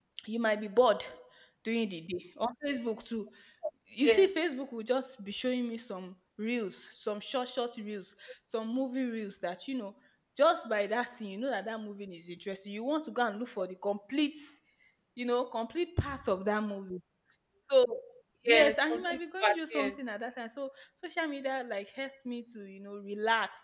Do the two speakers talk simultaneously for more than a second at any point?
Yes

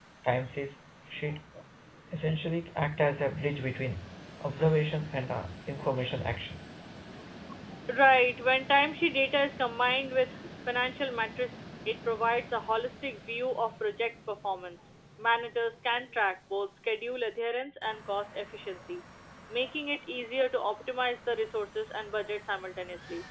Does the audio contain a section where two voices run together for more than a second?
No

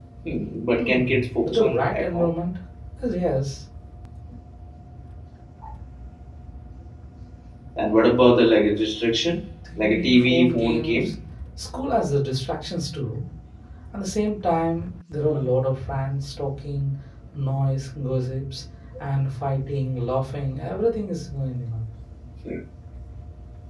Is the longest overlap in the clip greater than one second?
Yes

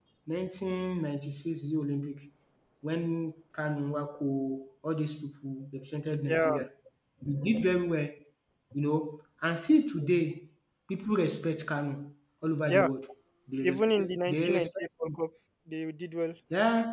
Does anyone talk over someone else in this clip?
Yes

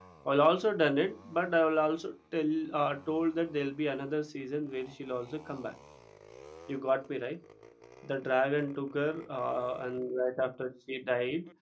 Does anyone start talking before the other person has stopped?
No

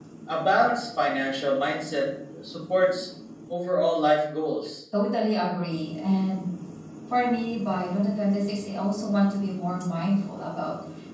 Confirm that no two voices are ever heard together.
Yes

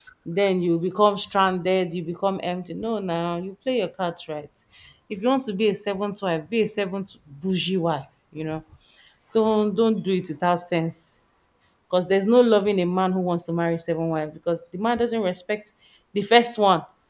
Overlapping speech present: No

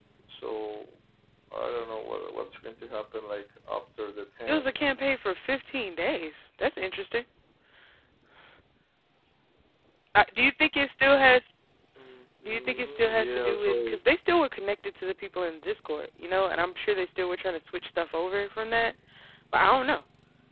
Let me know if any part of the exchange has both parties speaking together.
Yes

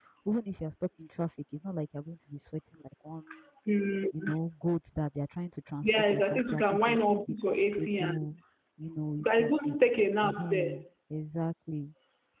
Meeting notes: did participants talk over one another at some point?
Yes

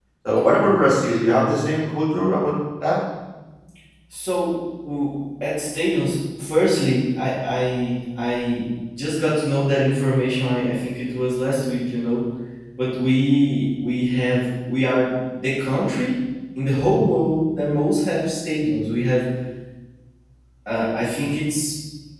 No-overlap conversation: Yes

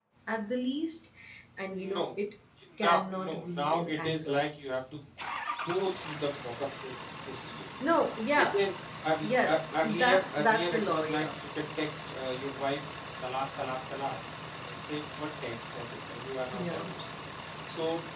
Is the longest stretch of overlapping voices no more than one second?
No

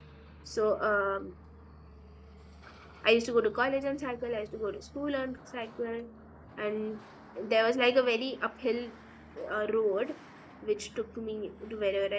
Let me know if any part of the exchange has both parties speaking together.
No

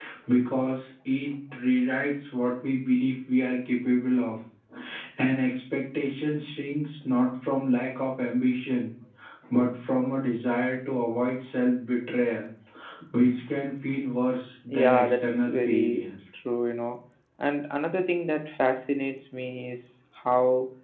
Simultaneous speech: Yes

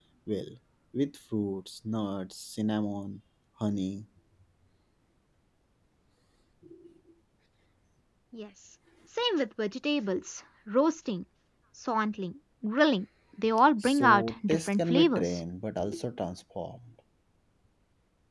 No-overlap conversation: No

